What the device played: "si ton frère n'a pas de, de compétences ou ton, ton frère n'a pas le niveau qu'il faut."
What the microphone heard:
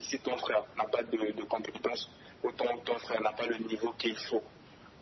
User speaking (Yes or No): No